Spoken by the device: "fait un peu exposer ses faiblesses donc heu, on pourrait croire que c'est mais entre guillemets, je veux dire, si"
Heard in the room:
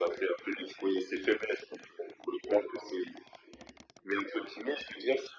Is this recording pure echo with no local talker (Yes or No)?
Yes